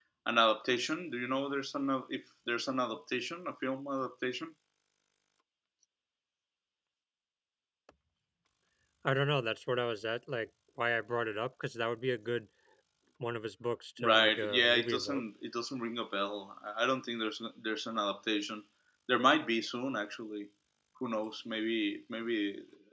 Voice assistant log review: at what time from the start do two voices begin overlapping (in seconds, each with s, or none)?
14.0 s